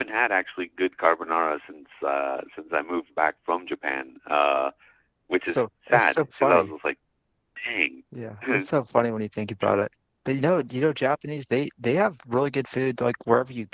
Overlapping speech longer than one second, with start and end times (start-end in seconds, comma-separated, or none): 5.4-6.7